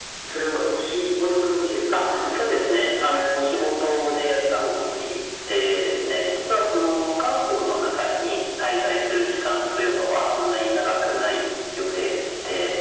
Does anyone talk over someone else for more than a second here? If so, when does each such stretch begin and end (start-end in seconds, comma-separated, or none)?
1.9-3.3